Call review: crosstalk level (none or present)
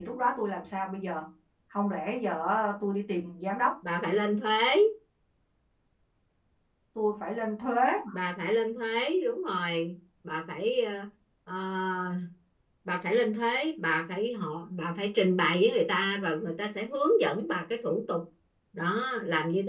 none